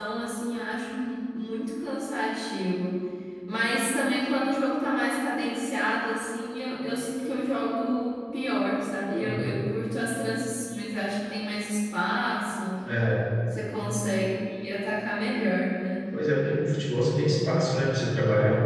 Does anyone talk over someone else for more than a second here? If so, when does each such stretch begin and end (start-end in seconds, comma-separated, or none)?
none